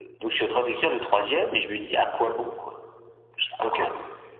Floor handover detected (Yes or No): Yes